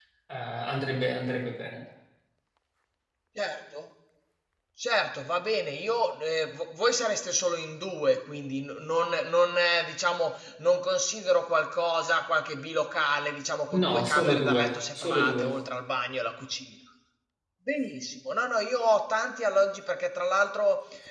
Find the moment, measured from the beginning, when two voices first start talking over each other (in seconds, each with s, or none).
13.7 s